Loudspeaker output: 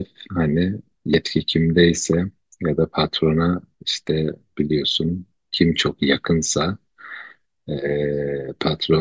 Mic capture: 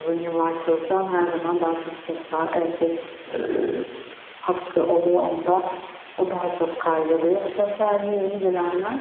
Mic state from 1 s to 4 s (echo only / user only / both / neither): user only